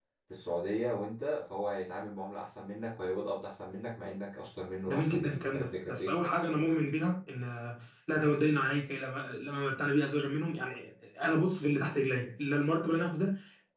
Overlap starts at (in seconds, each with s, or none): 4.9 s